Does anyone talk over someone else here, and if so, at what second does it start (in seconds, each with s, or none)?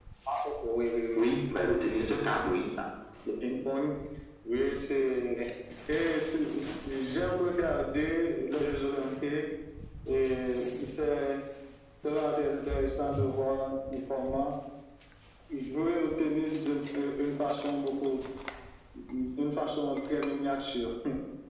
1.2 s